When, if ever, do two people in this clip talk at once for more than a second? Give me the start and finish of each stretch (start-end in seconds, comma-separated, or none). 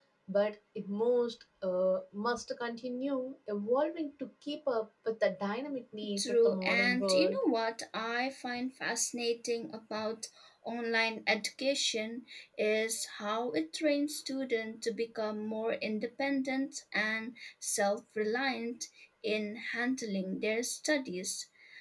6.2-7.4